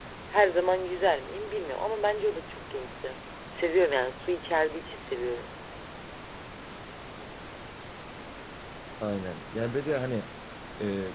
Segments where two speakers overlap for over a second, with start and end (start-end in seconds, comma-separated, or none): none